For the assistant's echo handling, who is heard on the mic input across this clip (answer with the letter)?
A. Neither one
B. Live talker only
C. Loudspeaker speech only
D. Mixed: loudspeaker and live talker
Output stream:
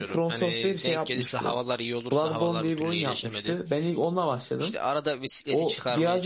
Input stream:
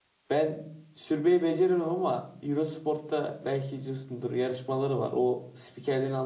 B